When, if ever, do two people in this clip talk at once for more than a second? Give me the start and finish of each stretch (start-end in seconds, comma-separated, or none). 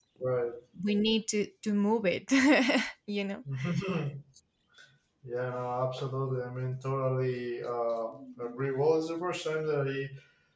none